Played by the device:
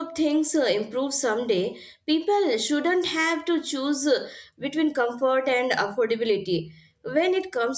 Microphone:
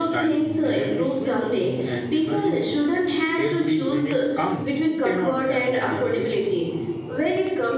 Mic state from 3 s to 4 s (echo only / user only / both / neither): both